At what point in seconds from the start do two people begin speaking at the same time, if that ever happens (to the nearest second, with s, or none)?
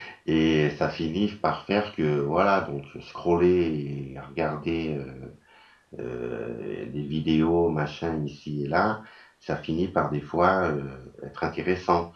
none